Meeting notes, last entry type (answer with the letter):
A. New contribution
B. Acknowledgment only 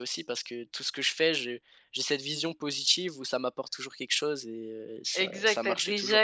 A